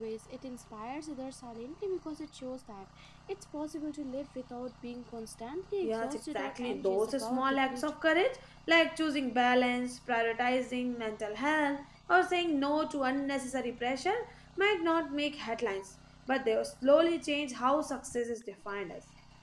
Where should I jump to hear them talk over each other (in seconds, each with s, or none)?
5.8 s